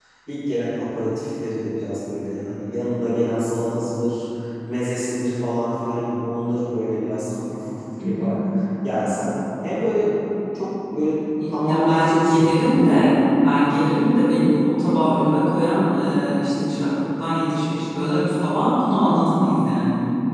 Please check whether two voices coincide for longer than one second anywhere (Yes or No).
Yes